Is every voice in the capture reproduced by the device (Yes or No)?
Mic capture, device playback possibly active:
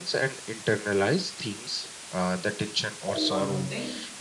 No